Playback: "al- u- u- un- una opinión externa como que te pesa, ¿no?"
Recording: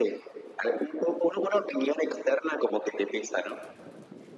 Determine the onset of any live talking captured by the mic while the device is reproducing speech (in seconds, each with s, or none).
none